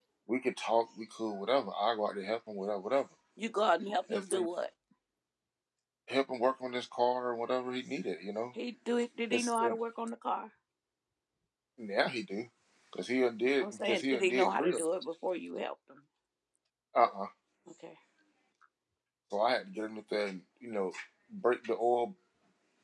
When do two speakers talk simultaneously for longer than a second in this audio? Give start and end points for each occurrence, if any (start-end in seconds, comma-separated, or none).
13.6-14.9